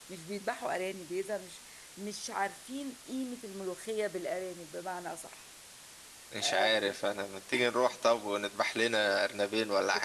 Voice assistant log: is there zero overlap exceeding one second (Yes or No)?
Yes